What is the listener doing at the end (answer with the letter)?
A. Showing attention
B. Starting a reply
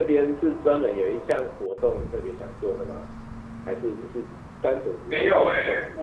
B